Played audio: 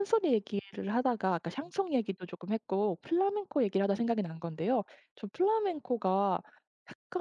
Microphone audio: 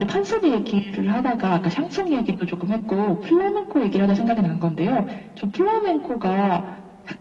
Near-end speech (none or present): none